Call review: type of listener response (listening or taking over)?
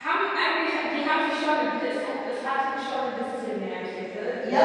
taking over